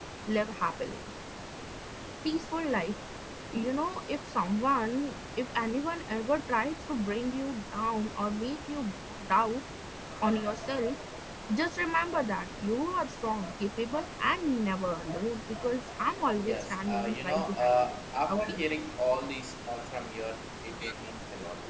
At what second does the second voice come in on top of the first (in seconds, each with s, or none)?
16.3 s